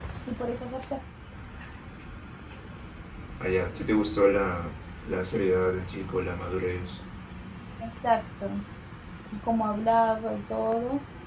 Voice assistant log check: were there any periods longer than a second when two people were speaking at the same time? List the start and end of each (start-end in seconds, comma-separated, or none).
none